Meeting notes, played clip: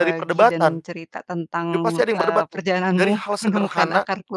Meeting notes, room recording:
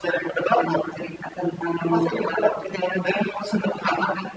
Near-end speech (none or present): none